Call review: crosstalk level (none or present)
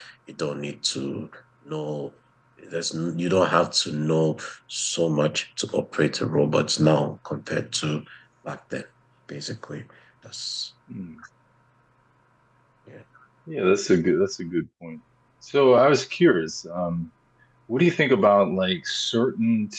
none